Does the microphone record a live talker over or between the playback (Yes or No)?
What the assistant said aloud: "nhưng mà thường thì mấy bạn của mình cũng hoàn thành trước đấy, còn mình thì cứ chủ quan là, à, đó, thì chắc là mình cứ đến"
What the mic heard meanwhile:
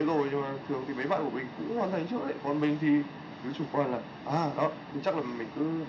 No